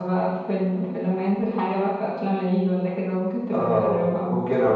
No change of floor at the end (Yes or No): No